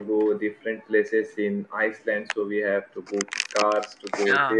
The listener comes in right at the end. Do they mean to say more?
No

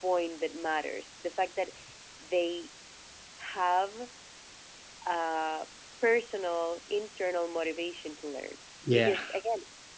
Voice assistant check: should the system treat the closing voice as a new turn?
No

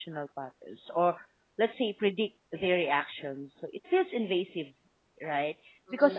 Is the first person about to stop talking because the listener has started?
No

